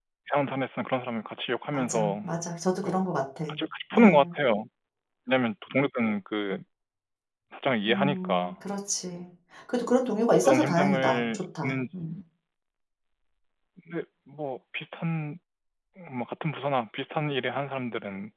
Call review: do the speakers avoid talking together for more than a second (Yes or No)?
No